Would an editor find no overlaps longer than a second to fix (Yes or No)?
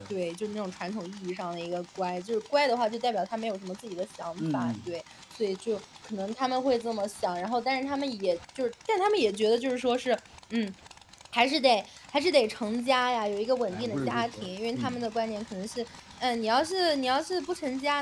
No